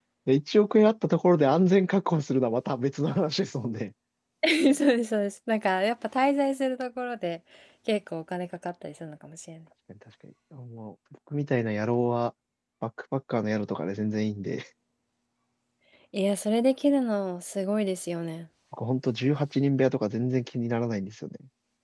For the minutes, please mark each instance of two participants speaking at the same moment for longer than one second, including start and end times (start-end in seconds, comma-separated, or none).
none